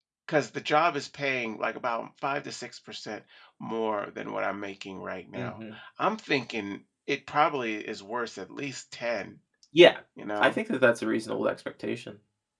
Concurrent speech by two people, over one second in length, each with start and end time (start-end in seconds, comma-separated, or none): none